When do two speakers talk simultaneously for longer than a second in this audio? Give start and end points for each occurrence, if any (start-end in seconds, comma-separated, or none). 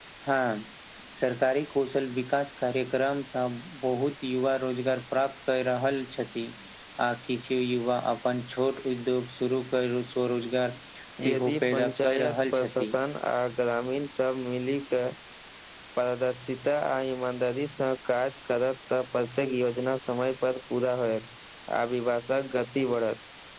11.2-12.9